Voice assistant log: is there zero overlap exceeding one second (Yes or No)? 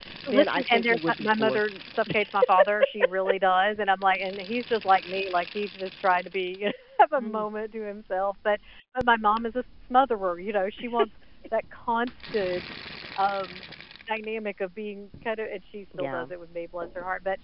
No